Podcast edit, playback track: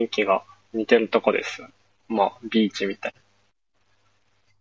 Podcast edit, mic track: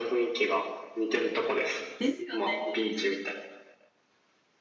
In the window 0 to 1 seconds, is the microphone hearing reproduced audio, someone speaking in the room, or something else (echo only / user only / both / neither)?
echo only